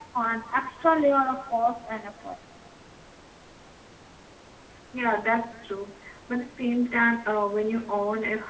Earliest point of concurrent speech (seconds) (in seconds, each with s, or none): none